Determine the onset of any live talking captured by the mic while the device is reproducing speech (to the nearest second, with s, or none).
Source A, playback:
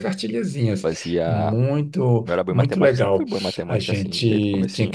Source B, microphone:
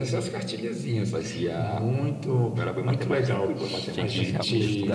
4 s